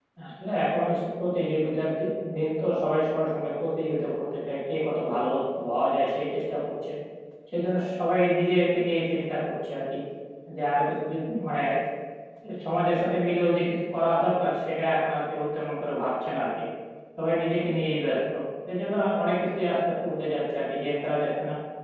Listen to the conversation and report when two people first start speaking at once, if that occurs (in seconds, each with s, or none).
none